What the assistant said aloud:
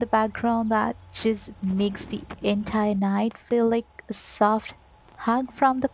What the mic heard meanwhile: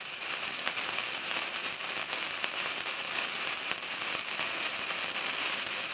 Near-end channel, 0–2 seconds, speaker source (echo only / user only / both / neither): neither